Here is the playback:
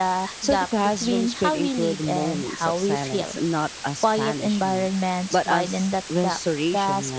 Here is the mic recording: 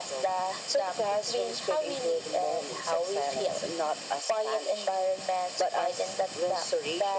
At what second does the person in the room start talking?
none

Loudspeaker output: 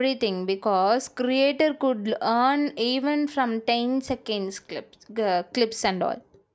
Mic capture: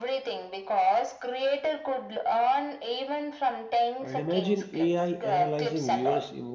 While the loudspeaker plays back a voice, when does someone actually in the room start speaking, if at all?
4.0 s

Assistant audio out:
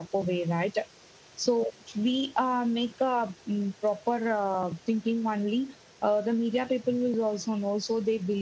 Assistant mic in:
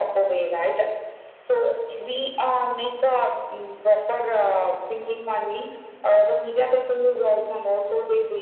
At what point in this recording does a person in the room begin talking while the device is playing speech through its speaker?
none

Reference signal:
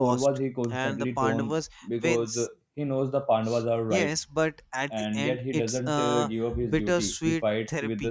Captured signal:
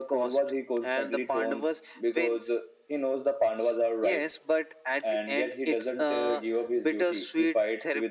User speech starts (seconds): none

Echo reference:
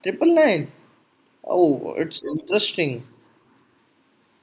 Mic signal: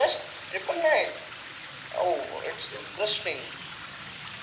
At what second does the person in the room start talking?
none

